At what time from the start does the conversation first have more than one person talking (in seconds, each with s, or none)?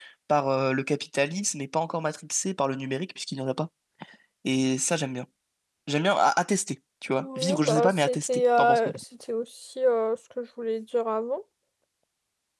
7.2 s